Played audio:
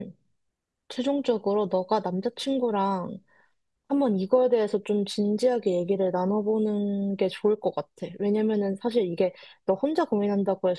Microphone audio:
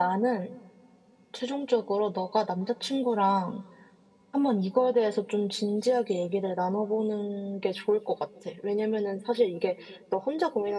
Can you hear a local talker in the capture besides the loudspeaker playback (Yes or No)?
No